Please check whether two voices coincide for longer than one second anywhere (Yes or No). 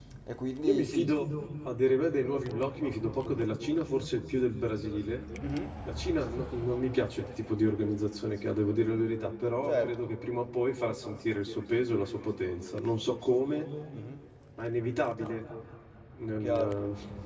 No